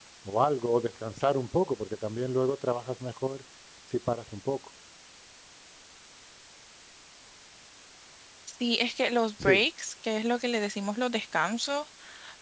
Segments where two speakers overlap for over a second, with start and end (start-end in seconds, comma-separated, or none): none